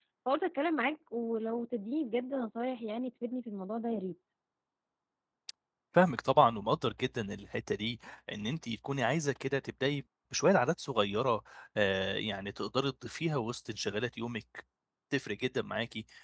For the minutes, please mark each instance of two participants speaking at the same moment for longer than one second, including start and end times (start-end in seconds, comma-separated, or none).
none